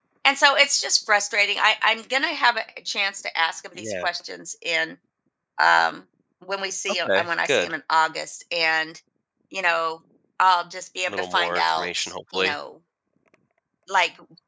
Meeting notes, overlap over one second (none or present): present